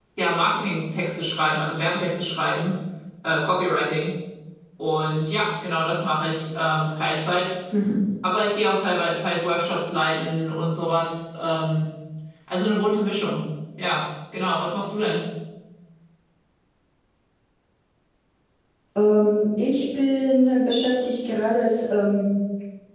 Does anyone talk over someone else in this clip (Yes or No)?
No